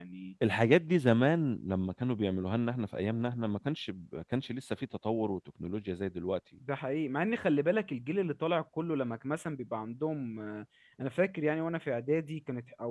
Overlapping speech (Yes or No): No